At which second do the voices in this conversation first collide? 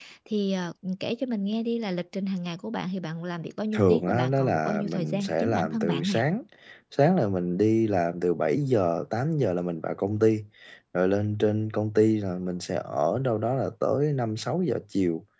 4 s

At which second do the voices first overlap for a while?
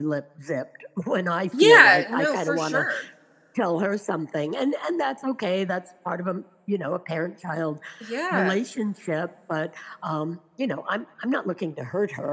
2 s

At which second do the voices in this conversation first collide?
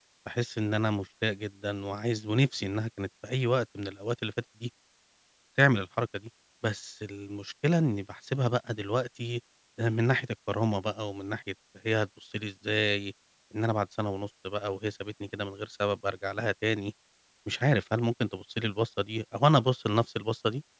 none

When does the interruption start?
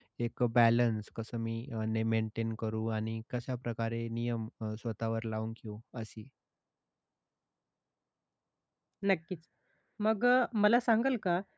none

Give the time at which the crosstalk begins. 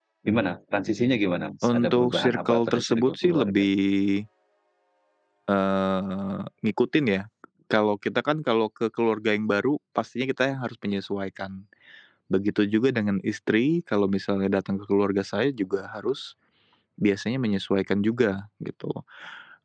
2 s

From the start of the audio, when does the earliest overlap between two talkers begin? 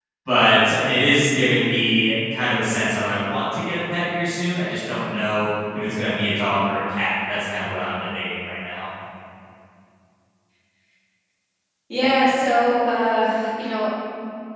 none

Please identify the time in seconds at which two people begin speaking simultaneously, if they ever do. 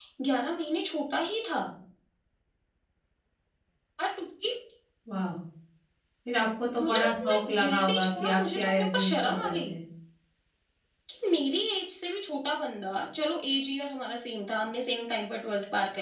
7 s

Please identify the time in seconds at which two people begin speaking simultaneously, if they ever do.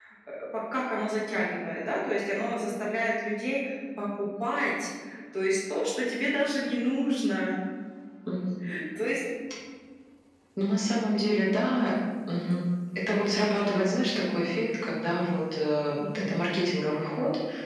none

